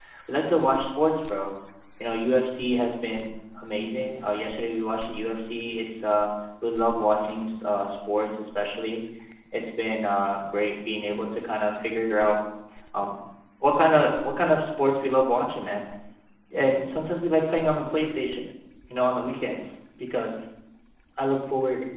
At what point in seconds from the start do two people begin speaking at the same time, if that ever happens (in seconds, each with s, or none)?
none